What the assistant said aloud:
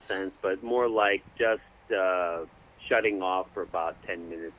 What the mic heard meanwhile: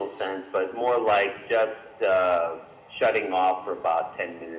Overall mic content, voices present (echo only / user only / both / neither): echo only